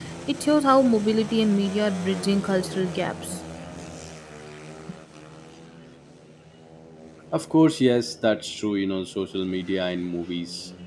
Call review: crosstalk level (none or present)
none